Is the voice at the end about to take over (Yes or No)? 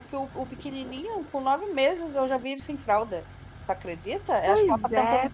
No